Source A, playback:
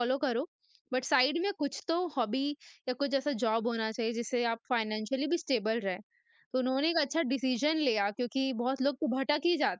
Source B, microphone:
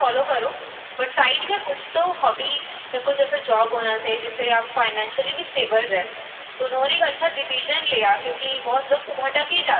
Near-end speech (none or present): none